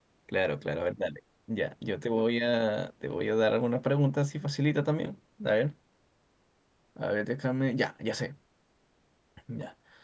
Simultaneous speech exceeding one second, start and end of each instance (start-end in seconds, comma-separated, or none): none